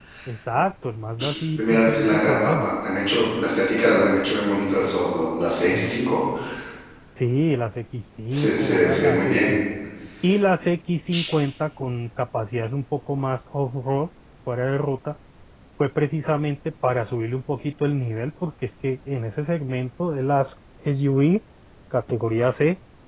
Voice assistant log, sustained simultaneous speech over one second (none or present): present